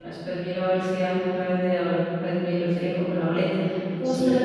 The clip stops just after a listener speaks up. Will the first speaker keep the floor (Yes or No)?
Yes